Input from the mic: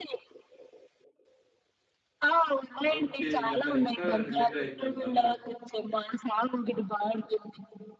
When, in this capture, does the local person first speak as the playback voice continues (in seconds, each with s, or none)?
3.0 s